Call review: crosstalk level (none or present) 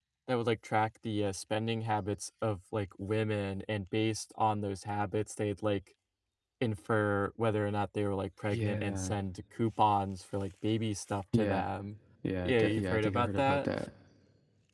present